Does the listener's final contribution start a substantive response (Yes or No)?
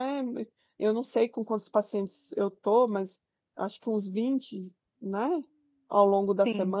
No